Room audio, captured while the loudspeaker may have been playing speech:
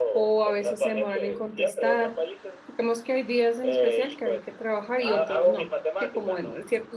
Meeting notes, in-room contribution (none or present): present